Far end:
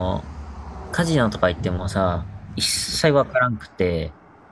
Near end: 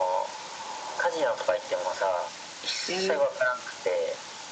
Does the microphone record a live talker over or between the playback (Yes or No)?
Yes